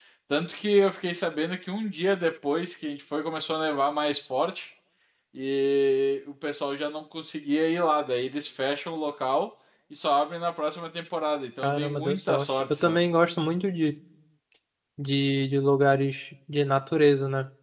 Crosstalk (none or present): present